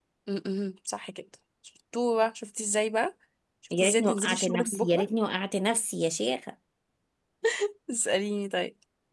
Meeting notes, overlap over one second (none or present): present